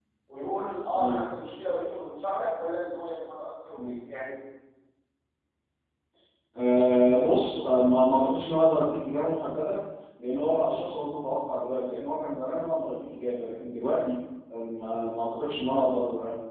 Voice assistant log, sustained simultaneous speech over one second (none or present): none